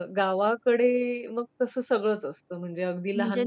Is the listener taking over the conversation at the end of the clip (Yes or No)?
Yes